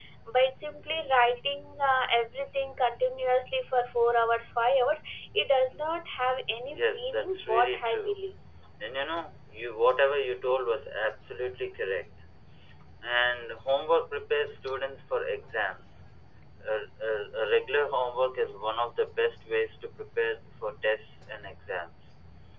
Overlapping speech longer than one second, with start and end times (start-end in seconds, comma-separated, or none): 6.7-8.1